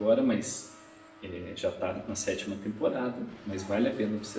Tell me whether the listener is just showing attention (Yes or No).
Yes